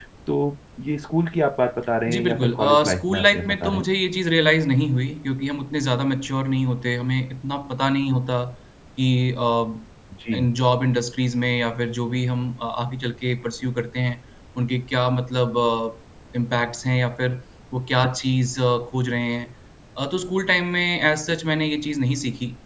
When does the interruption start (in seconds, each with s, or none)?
2.1 s